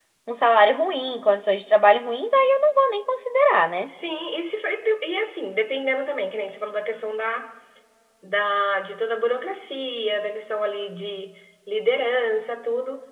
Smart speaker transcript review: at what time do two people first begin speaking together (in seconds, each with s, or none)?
none